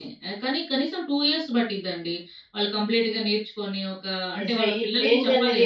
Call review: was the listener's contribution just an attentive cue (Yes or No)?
No